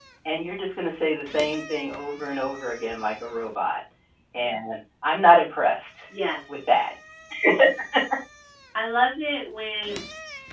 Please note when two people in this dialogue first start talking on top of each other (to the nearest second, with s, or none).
none